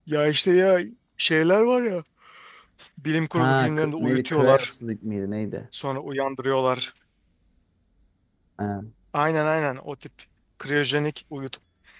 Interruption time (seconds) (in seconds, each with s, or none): 3.3 s